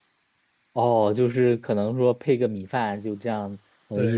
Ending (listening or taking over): taking over